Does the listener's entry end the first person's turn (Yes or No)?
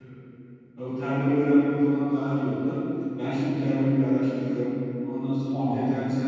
No